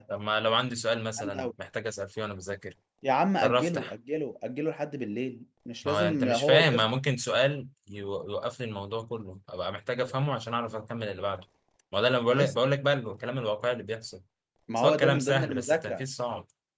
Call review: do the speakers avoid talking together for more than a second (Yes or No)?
No